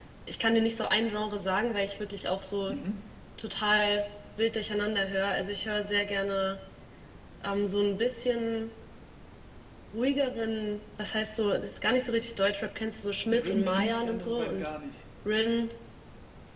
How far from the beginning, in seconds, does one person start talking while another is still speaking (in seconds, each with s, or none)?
13.3 s